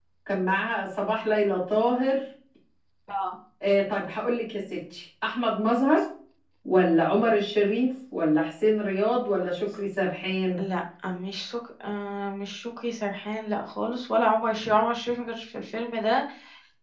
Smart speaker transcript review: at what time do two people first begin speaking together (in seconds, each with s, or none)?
none